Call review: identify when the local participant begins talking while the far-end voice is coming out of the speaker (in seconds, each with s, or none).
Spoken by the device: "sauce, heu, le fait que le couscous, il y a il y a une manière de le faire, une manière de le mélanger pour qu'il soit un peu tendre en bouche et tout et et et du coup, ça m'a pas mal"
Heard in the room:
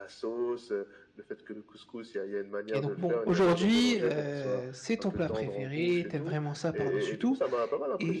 2.7 s